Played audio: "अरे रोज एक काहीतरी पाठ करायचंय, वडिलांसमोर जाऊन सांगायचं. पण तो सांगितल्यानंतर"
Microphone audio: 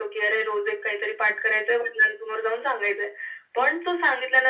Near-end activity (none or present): none